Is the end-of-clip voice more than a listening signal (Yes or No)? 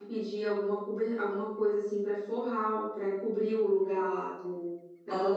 Yes